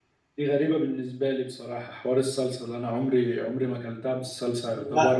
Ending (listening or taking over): listening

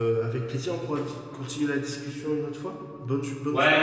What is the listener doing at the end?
taking over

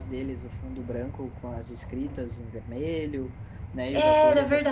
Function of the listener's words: listening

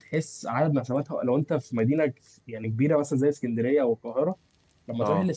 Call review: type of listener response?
listening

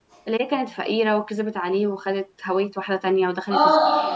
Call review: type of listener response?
taking over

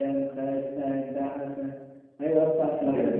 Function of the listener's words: listening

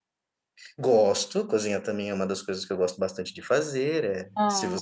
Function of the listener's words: listening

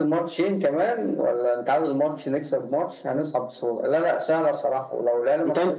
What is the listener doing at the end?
listening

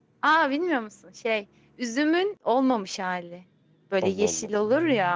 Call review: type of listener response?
listening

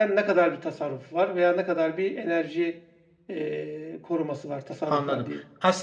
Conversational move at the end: taking over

